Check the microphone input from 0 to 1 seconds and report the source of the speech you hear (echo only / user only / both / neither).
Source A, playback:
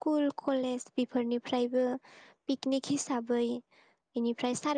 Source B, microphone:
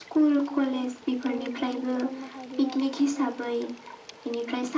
both